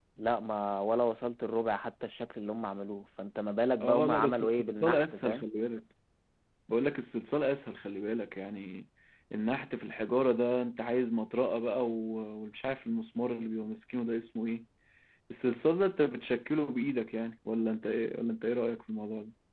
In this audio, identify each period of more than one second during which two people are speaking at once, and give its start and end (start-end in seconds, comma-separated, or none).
3.8-5.5